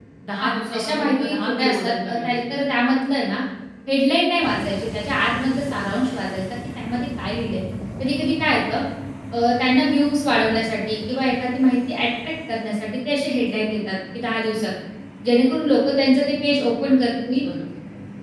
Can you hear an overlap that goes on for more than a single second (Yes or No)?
Yes